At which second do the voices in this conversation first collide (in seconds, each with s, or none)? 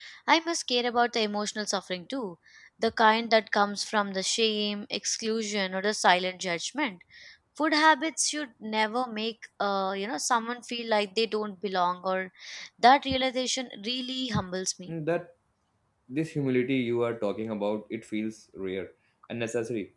none